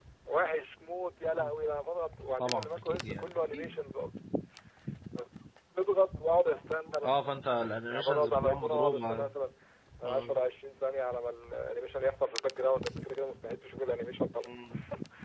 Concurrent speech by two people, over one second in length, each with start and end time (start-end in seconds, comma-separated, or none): 2.4-4.1, 7.9-9.3